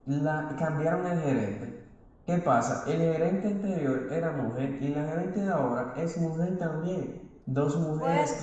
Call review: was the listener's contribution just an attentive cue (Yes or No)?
Yes